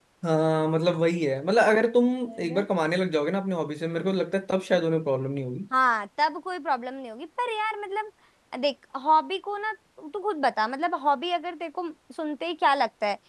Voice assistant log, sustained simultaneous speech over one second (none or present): none